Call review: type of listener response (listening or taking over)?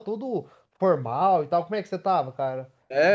taking over